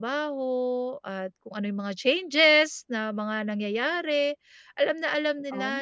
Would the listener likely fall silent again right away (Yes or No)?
Yes